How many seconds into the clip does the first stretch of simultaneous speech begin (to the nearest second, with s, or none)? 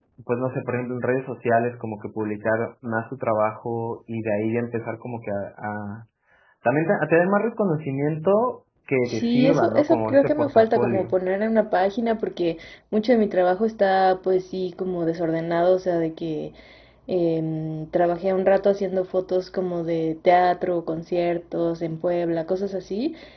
9 s